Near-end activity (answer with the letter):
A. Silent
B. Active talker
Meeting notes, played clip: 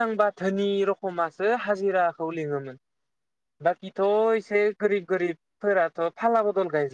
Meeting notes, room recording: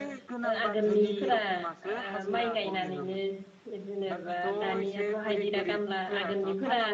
B